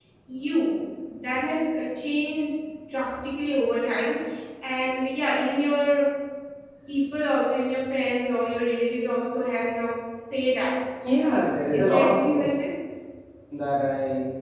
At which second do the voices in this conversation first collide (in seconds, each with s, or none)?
11.0 s